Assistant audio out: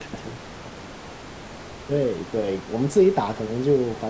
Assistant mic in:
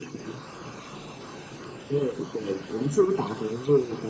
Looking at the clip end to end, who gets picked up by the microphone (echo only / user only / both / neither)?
echo only